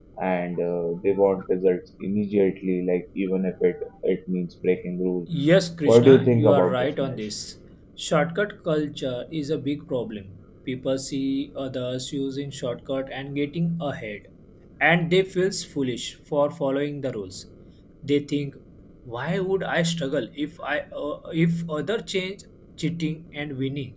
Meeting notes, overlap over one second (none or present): present